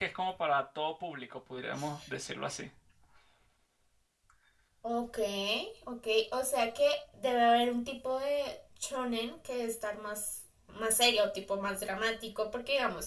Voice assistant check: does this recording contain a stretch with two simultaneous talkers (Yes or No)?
No